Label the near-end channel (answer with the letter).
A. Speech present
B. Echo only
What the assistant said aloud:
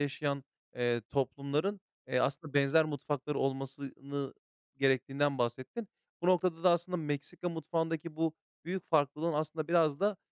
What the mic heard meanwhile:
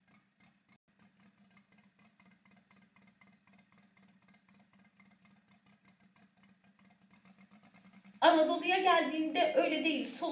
A